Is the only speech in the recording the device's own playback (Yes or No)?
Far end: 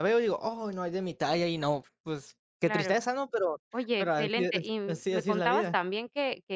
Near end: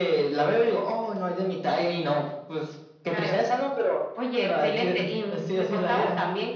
Yes